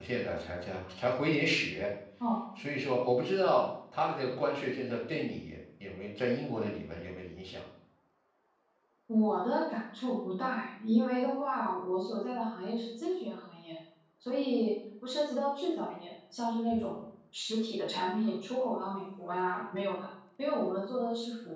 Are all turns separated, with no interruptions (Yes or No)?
Yes